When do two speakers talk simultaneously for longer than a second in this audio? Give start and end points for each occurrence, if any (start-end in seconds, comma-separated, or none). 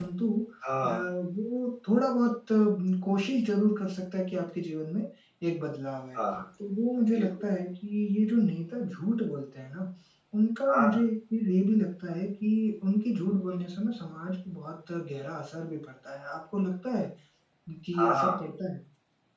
none